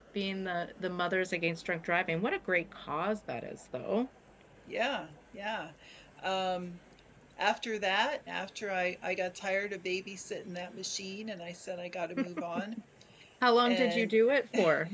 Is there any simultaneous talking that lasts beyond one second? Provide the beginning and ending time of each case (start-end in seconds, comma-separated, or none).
none